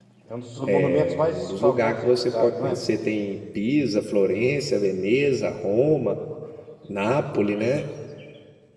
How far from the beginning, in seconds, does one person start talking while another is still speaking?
0.9 s

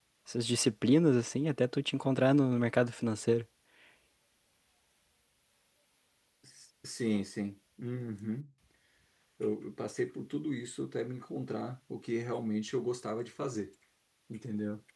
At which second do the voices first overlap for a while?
none

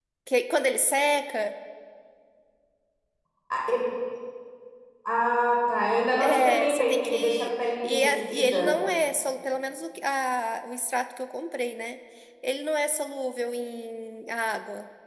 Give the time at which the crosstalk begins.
6.2 s

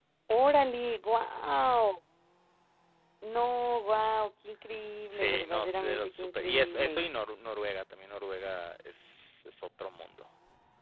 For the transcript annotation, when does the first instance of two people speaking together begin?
5.1 s

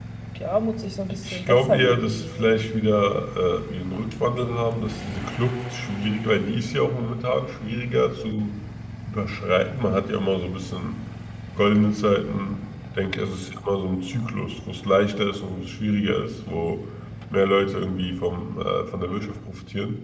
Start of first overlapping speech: 1.1 s

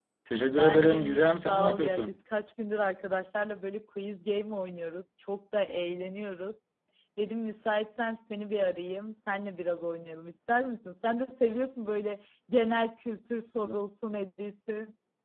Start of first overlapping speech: 0.5 s

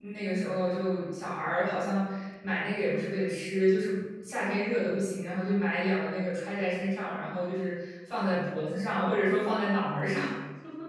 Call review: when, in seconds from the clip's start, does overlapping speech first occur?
none

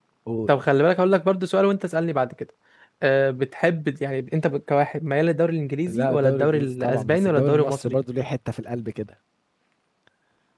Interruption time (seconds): 5.9 s

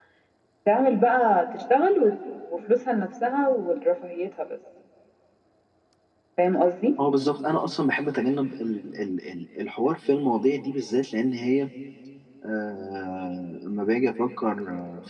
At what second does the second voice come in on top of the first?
none

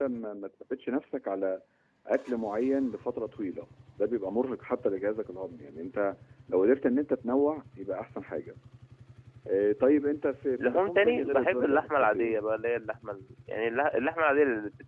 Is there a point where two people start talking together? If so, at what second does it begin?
10.6 s

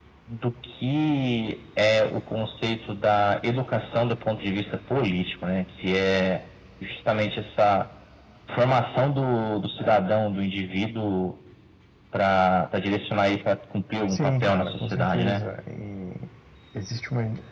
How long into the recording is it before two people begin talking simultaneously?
14.1 s

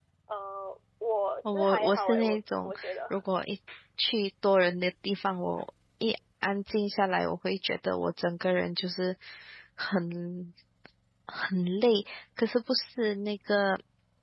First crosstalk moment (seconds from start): 1.4 s

